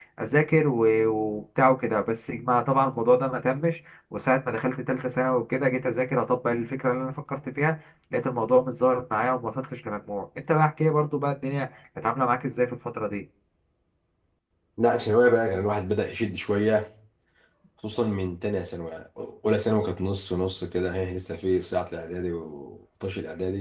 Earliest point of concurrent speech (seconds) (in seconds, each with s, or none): none